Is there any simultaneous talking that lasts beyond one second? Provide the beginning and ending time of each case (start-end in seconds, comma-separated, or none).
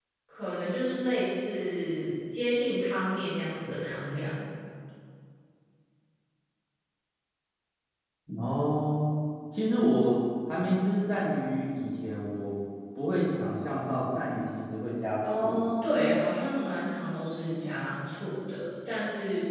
none